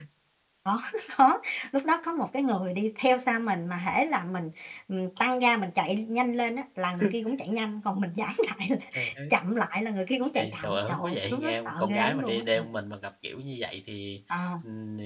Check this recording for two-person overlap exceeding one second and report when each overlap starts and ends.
10.3-12.7

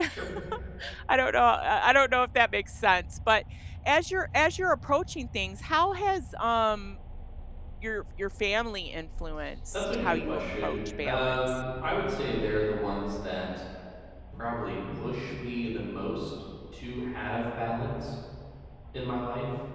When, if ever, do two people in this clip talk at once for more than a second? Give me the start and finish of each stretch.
9.7-11.4

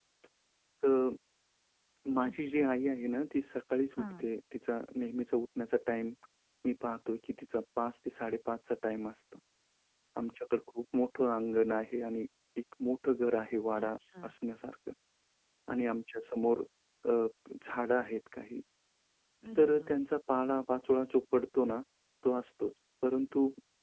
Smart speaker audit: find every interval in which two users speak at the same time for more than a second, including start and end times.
none

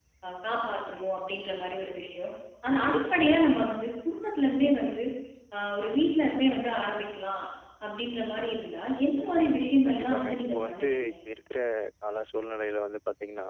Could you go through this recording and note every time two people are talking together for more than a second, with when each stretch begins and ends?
9.8-11.1

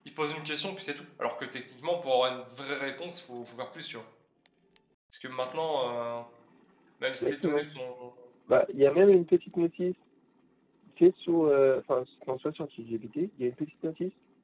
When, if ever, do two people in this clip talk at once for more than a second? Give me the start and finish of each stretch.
none

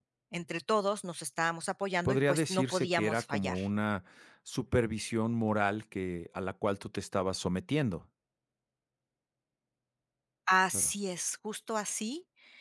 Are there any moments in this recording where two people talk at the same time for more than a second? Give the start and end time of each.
2.0-3.6

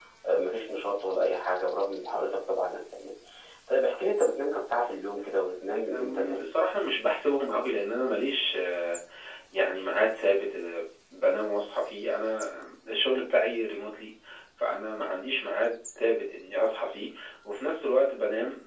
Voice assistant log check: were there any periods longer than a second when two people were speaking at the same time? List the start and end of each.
5.2-6.5

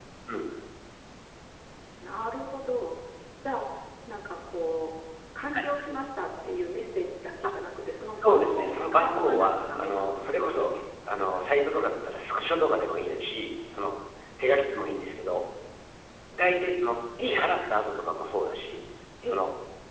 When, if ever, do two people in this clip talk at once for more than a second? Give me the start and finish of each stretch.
8.1-10.7

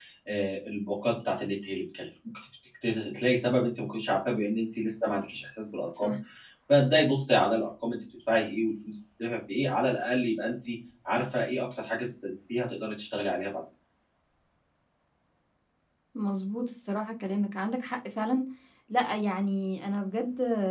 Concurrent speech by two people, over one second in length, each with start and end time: none

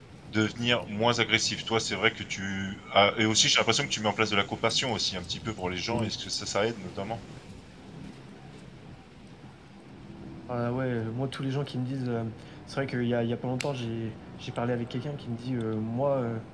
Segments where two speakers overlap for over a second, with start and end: none

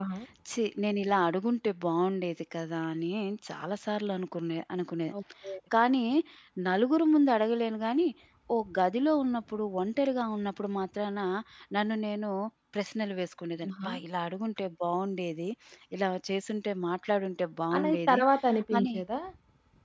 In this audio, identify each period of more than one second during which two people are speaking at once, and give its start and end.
none

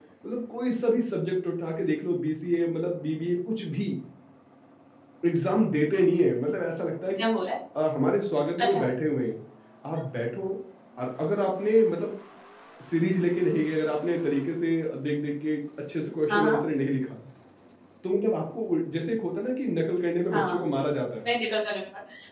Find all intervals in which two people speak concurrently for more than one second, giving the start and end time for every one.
none

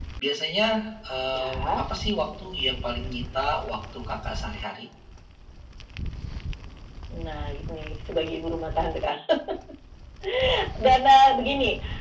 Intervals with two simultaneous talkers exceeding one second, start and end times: none

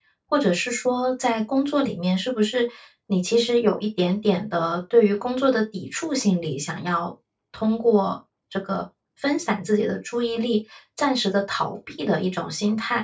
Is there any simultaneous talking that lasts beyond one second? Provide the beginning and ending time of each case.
none

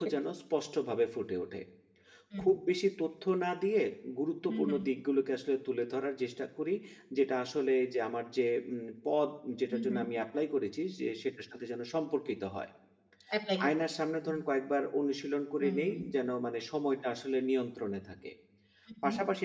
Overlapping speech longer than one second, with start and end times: none

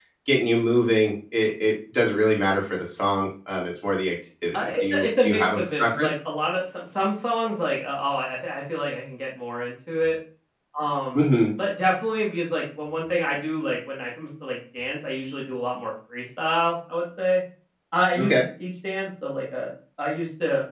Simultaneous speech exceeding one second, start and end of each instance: 4.5-6.1

